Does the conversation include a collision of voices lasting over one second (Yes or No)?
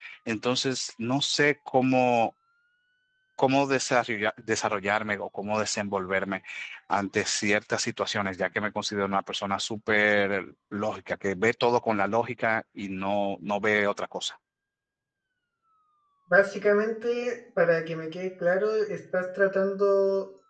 No